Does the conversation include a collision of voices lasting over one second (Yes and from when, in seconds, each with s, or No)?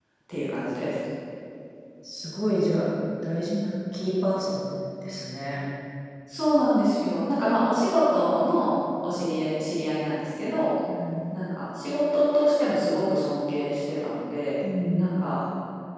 No